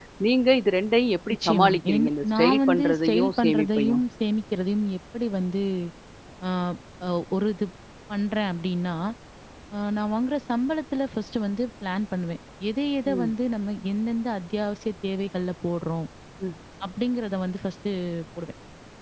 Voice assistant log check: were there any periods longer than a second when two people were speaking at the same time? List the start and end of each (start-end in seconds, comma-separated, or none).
1.3-4.0